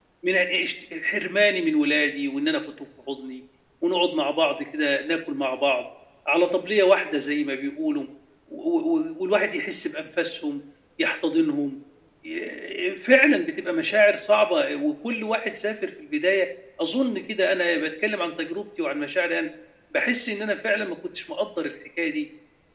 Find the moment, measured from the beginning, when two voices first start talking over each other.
none

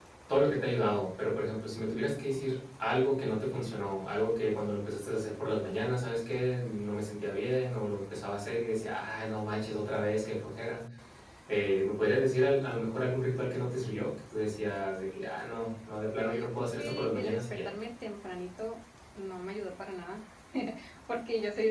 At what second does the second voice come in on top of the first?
16 s

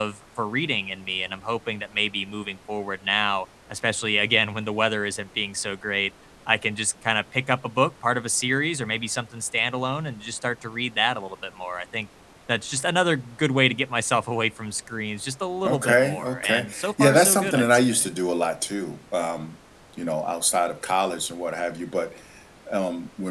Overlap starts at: 16 s

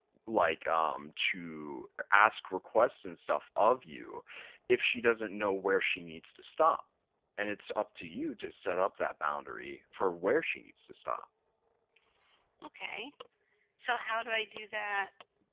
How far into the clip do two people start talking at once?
none

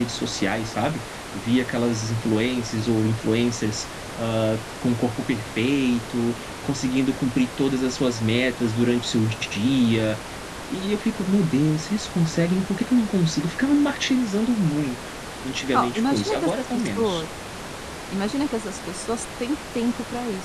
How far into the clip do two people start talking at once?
16 s

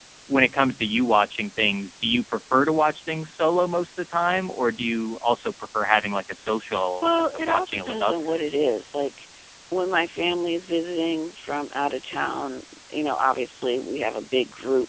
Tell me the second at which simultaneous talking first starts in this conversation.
7 s

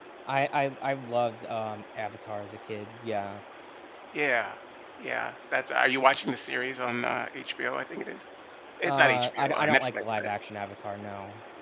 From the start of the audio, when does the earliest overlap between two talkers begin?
9 s

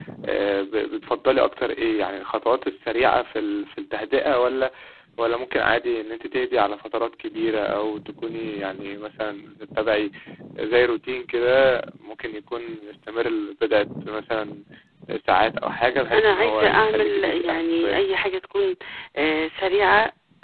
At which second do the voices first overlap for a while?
16 s

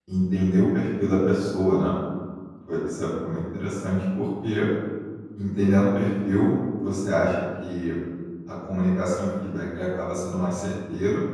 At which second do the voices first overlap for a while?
none

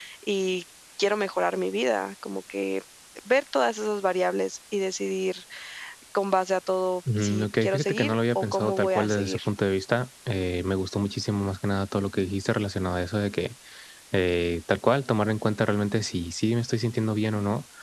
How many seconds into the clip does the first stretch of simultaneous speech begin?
7 s

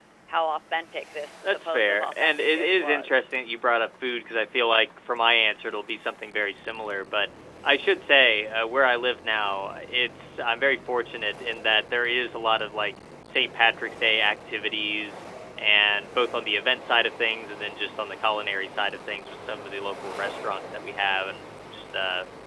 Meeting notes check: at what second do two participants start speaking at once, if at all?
1 s

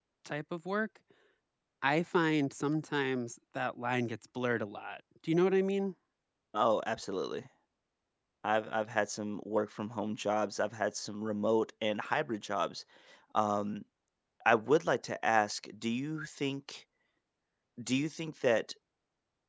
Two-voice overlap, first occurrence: none

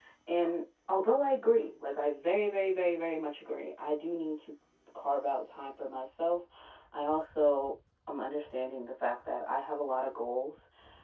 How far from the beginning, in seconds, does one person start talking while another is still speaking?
none

